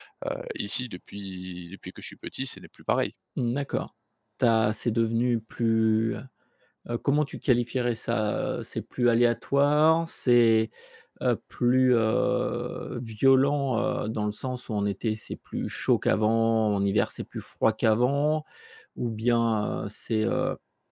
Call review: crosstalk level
none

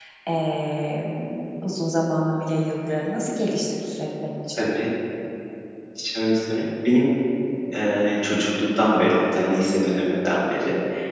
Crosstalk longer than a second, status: none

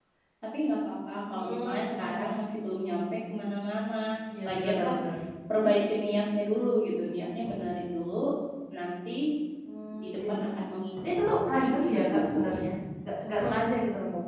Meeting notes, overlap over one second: present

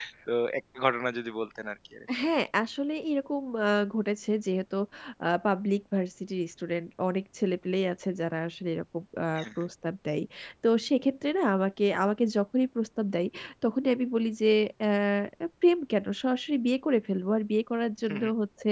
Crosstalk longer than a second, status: none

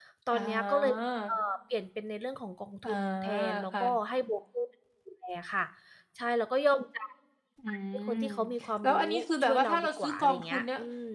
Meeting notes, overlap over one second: present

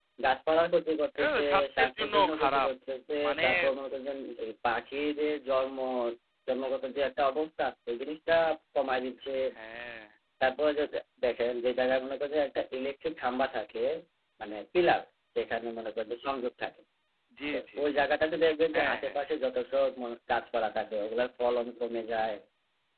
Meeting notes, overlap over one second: present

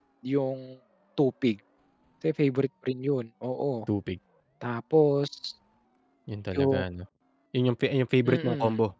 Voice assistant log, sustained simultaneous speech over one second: none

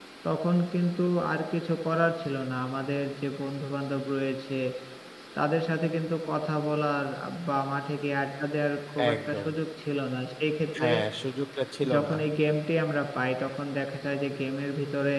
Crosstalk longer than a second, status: none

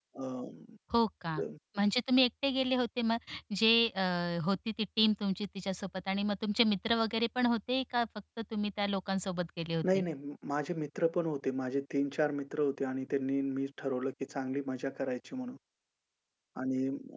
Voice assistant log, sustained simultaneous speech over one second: none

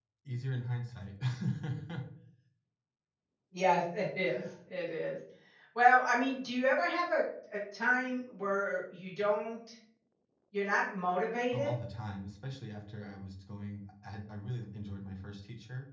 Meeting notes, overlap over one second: none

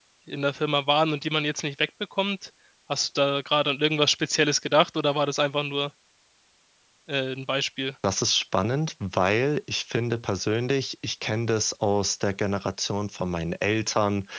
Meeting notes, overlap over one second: none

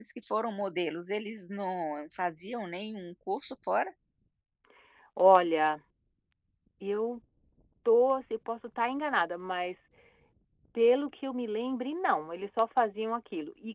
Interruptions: none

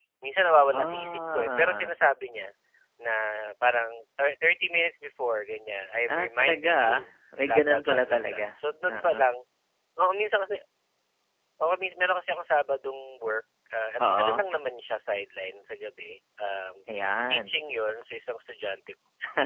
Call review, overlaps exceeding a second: present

